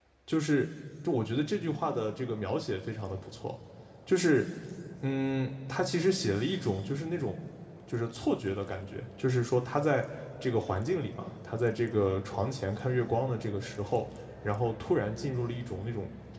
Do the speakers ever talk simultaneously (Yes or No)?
No